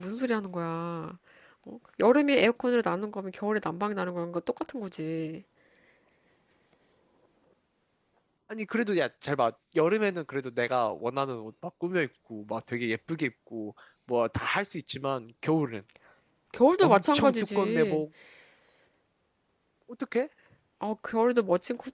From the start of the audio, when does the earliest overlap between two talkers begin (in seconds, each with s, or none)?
16.8 s